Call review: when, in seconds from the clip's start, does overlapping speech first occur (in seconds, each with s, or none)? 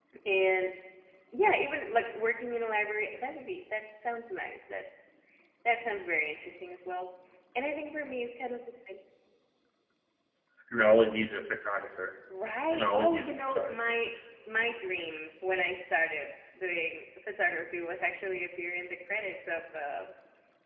12.7 s